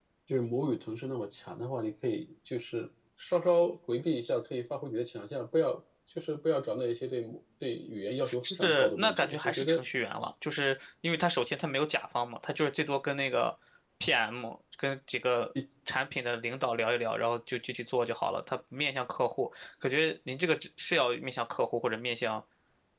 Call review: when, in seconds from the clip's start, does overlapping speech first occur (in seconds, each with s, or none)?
8.2 s